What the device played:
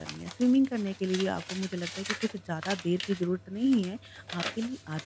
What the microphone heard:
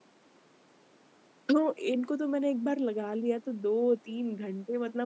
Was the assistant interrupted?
Yes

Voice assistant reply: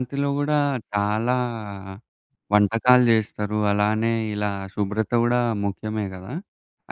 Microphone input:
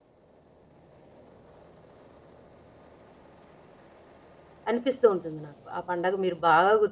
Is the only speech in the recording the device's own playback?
No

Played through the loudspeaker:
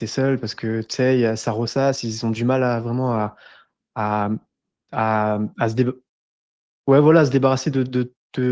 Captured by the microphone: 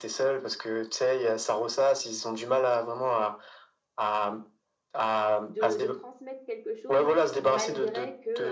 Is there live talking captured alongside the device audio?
Yes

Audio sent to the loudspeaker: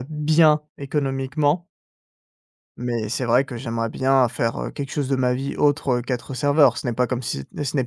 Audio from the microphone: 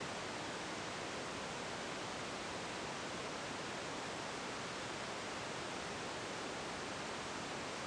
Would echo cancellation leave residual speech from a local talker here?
No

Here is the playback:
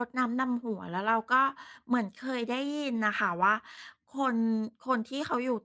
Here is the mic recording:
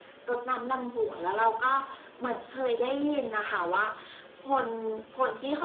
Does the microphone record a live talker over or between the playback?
No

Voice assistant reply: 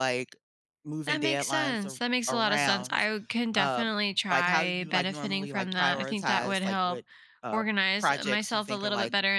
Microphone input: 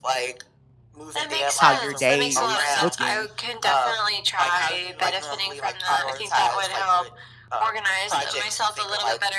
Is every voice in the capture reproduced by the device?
No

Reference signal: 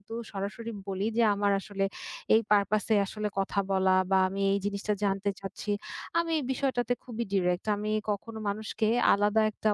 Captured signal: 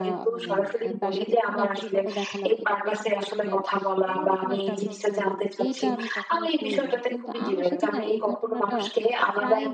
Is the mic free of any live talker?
No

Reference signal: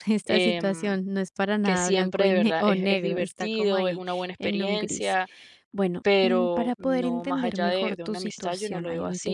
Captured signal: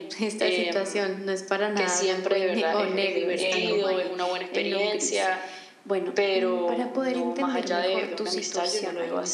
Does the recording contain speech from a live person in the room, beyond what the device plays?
Yes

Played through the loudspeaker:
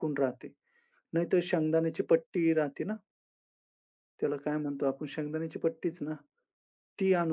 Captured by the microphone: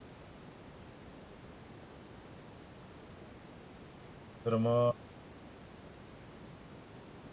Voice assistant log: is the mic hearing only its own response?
No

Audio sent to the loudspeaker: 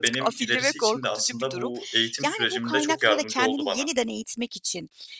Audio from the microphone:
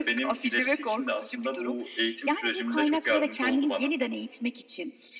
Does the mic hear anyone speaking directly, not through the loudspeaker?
No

